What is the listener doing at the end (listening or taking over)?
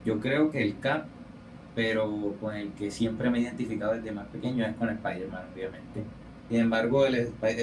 listening